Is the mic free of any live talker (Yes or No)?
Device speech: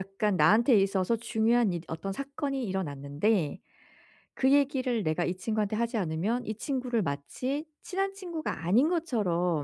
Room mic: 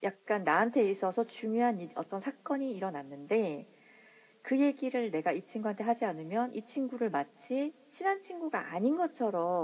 Yes